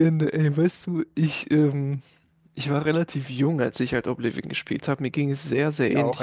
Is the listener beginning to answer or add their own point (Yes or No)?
No